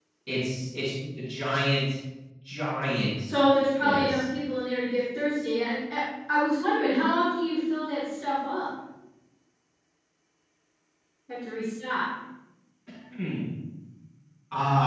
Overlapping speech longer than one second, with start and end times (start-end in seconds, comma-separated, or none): none